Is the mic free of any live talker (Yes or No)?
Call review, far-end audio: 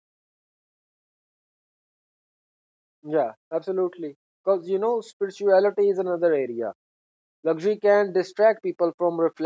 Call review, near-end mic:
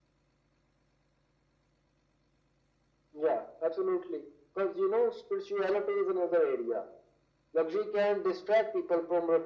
Yes